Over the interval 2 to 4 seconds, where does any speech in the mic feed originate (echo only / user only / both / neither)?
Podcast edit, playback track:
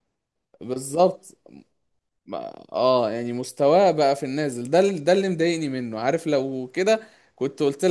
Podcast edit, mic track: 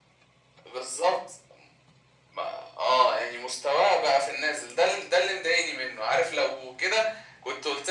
echo only